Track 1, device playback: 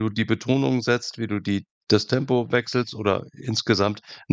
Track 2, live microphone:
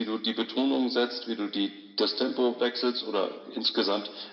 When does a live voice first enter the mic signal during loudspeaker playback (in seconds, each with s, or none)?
none